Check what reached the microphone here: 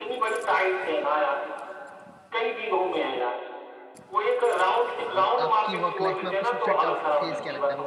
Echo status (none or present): present